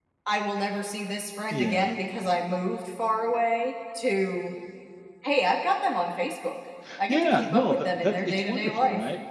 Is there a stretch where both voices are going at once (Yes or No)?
Yes